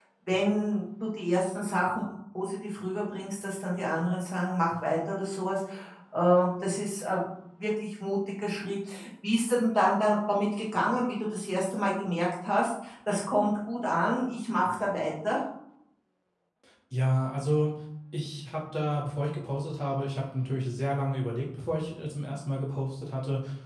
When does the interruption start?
none

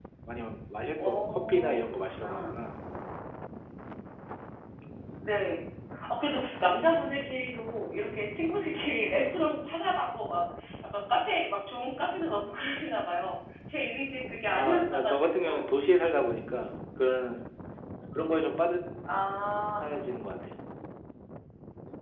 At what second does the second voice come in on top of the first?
1 s

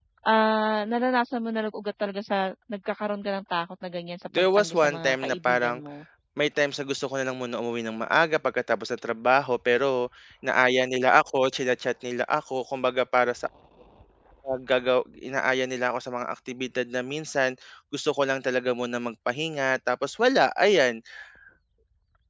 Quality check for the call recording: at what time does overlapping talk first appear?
4 s

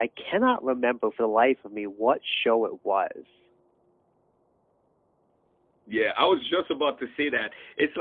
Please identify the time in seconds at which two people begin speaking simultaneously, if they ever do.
none

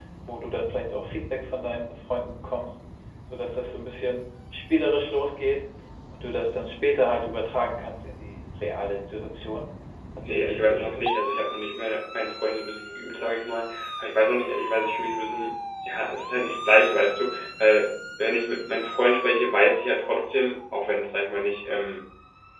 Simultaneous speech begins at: 10 s

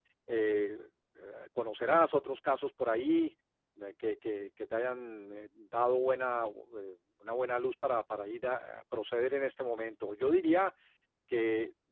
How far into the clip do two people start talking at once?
none

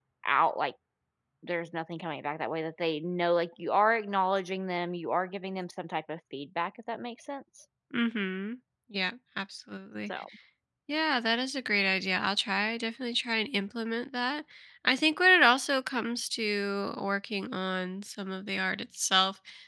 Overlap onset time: none

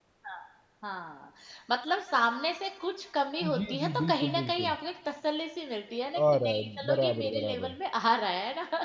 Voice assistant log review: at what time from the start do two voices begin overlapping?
3 s

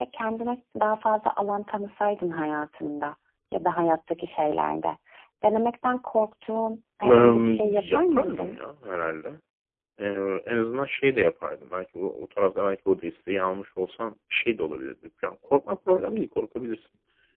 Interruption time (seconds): 7 s

